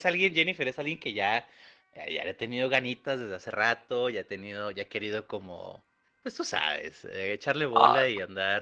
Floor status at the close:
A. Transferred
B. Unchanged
B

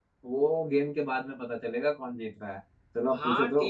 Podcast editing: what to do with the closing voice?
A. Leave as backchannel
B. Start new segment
B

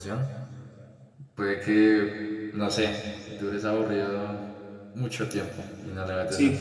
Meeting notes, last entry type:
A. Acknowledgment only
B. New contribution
B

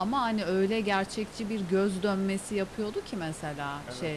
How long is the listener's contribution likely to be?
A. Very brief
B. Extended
A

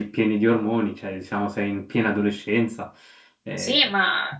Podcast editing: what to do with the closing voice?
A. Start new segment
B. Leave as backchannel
A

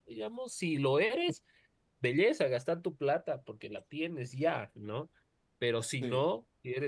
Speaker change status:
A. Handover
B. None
B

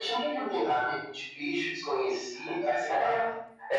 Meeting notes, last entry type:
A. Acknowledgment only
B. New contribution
B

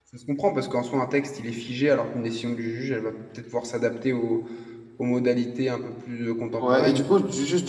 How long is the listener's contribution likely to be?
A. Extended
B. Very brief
A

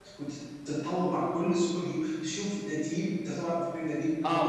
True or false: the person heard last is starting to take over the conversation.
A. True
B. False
B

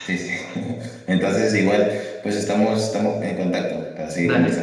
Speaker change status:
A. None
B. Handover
B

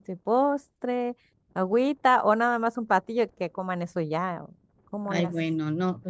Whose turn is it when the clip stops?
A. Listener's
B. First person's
A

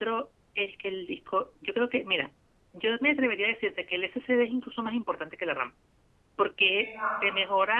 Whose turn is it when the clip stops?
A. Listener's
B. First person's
B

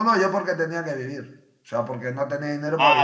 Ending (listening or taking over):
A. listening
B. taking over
B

